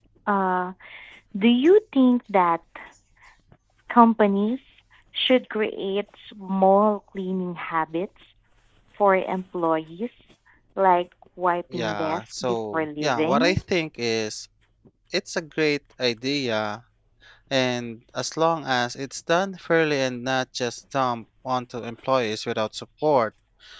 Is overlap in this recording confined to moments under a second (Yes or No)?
No